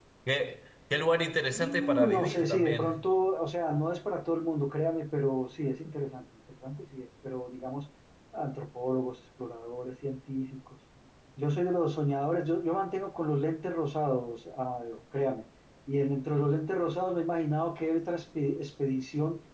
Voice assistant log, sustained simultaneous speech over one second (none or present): present